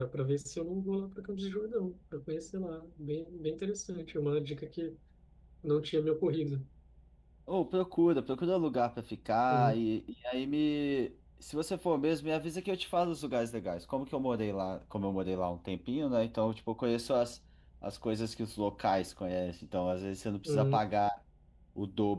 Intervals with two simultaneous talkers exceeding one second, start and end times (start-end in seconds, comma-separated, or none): none